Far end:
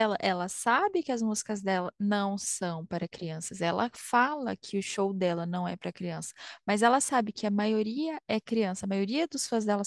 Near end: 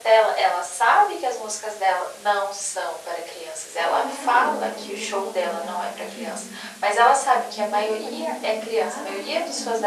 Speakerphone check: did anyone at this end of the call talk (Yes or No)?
Yes